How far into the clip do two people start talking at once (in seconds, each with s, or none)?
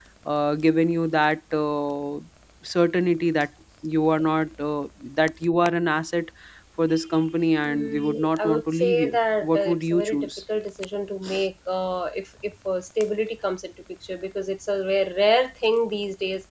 7.6 s